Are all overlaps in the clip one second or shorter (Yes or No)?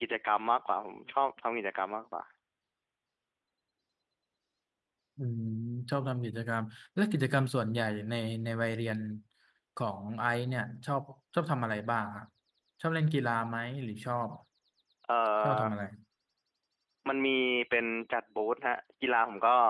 Yes